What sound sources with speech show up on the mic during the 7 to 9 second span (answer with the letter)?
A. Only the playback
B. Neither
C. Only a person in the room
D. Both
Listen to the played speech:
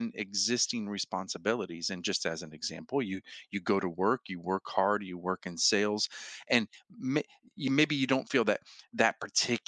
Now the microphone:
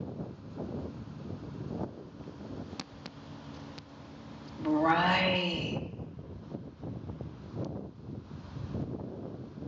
B